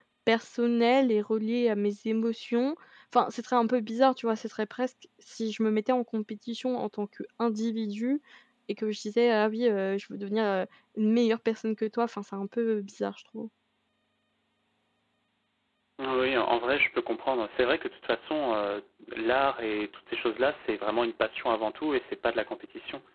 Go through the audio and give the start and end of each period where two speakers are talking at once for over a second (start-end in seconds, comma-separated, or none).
none